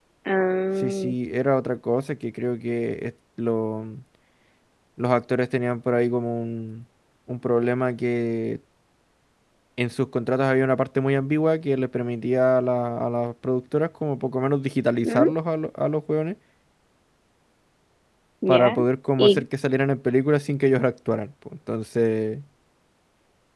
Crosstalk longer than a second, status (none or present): none